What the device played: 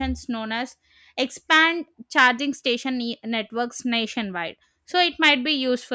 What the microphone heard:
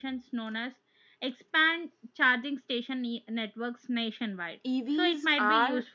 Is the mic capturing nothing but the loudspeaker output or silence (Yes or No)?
No